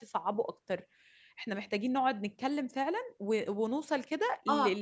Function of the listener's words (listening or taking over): listening